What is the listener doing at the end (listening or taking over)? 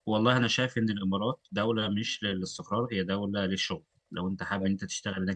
listening